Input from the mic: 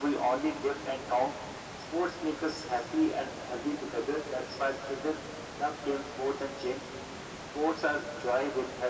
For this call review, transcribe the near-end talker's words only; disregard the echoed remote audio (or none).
none